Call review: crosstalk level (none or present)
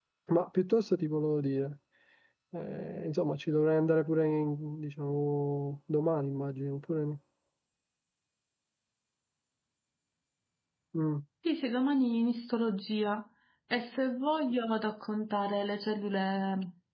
none